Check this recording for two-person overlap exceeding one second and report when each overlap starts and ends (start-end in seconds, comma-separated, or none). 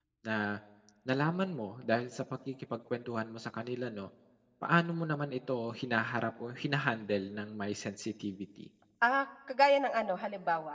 none